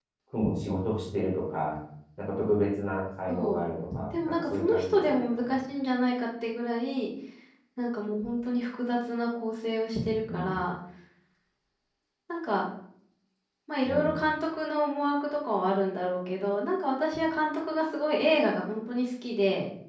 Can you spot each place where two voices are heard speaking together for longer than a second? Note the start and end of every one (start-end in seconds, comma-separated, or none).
4.1-5.6